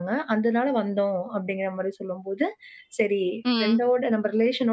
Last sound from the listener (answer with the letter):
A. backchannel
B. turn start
A